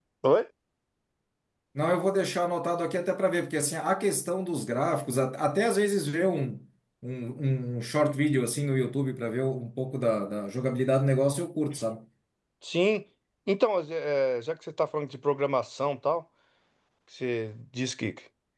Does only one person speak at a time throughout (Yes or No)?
Yes